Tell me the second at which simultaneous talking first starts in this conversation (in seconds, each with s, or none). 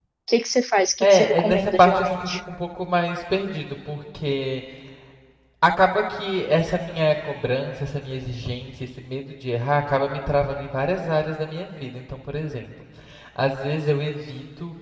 1.0 s